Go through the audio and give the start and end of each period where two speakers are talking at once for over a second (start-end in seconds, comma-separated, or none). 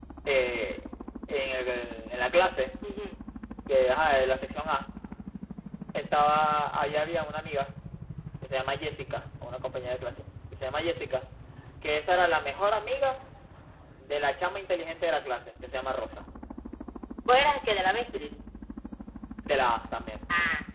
none